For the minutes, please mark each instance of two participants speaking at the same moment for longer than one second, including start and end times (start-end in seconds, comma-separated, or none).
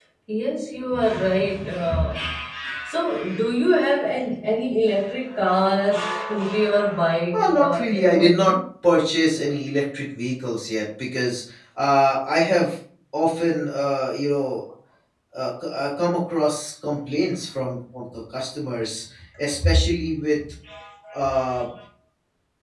7.3-8.5